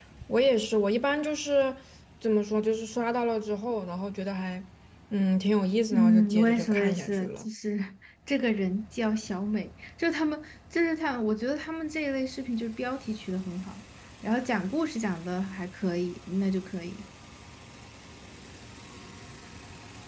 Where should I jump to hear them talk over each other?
5.9 s

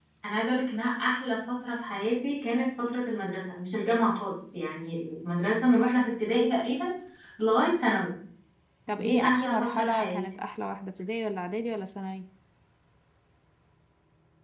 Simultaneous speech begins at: 8.9 s

